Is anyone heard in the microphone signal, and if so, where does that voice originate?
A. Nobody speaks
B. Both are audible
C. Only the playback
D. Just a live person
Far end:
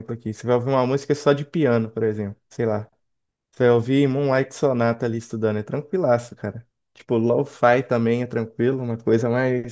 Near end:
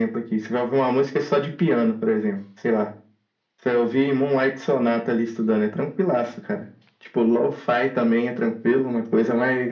C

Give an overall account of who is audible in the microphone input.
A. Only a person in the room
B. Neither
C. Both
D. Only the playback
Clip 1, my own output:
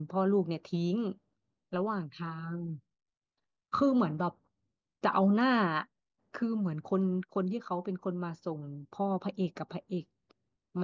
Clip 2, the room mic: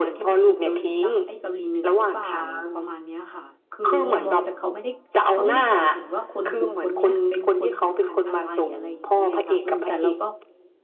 C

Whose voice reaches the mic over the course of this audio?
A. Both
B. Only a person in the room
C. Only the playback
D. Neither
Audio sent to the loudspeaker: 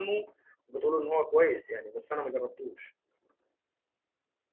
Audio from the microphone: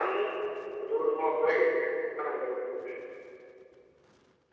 C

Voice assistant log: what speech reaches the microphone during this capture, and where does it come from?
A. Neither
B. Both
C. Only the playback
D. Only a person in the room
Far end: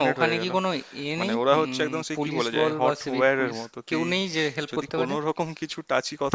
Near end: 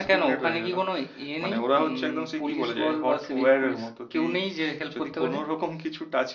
C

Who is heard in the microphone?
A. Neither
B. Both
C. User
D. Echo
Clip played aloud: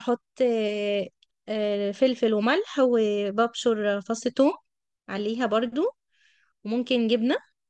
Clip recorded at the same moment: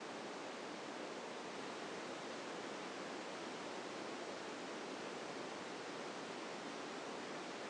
A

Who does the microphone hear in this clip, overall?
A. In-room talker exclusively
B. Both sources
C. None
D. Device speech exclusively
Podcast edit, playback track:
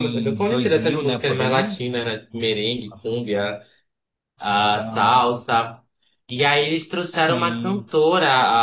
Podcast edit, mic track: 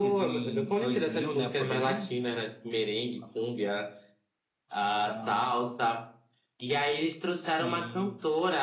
D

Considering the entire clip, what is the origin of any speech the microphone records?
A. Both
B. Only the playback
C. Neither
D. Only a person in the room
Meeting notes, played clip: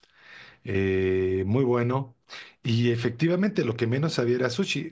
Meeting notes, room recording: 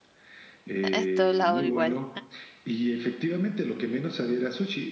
A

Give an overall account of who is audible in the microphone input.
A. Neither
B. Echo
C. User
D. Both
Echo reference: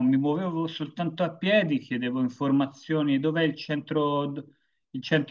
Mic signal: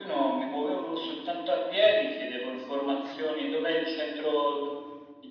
B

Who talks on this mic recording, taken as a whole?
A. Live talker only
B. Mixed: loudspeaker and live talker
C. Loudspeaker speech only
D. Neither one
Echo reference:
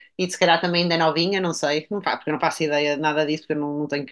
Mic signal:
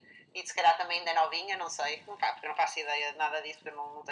C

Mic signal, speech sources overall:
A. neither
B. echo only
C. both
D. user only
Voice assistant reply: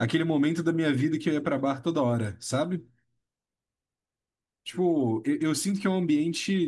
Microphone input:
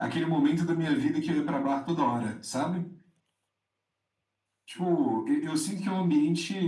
B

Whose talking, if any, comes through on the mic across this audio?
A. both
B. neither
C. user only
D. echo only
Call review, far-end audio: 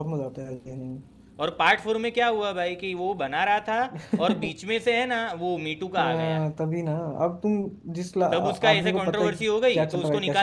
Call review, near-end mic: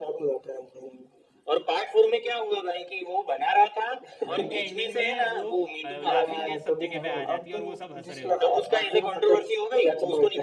A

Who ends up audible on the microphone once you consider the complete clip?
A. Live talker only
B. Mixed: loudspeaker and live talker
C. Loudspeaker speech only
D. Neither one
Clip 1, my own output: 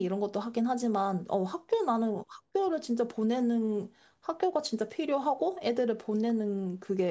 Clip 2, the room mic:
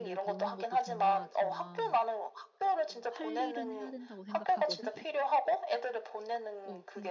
B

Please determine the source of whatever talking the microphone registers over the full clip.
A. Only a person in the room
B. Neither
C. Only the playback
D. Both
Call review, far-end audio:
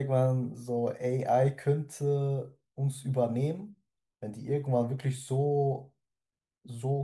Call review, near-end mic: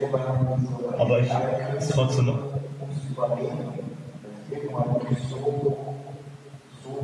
D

